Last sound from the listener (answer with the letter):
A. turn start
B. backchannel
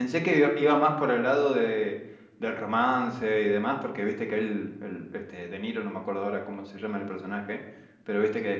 B